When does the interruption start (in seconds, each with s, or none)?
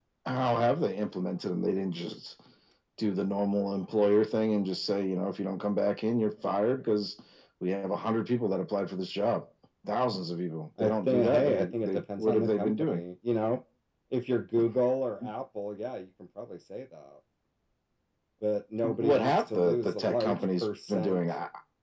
10.8 s